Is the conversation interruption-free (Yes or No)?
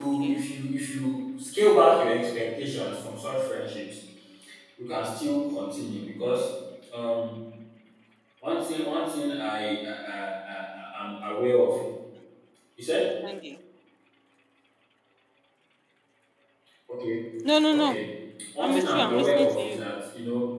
No